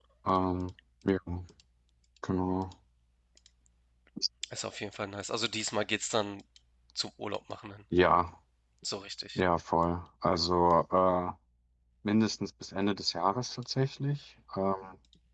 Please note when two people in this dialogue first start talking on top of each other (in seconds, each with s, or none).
none